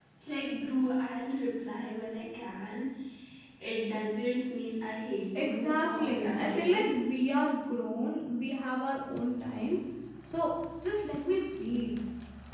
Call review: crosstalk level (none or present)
present